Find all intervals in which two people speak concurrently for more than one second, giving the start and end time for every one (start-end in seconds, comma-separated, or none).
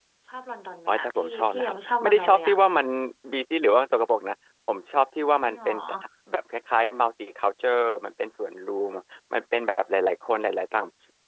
0.9-2.6